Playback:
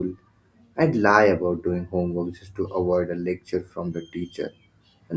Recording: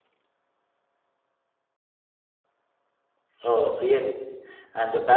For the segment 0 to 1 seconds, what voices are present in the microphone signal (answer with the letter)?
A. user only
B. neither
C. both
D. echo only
B